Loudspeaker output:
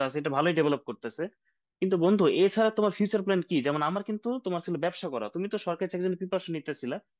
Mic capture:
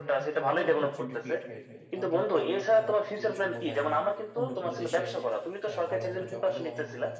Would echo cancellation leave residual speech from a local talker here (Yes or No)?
Yes